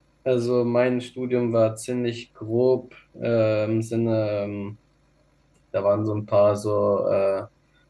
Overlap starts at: none

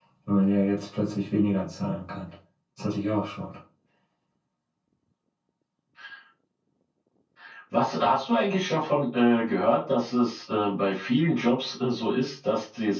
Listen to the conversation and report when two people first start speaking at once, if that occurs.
none

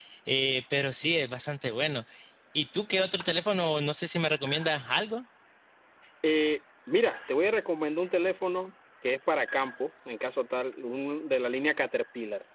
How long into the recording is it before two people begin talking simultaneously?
none

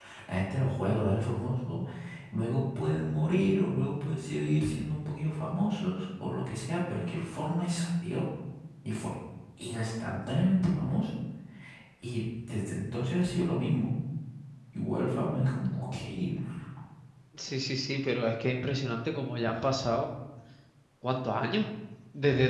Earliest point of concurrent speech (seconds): none

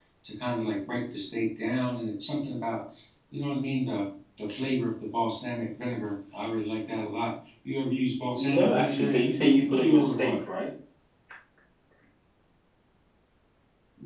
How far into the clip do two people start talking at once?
8.4 s

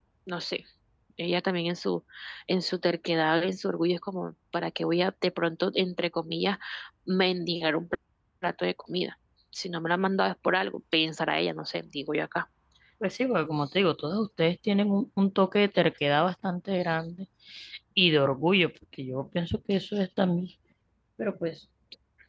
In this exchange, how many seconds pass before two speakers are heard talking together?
none

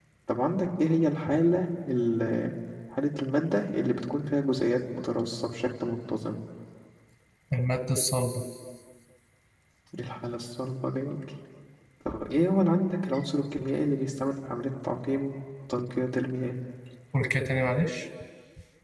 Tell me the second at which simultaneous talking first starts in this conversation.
none

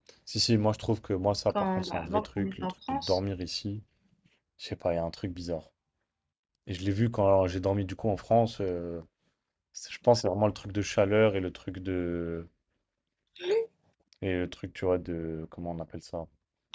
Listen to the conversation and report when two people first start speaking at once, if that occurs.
1.5 s

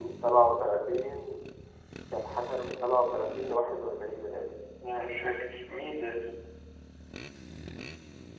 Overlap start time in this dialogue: none

